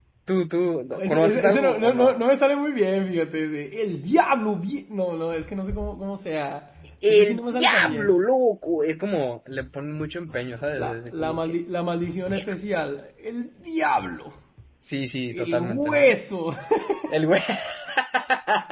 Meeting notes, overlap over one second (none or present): present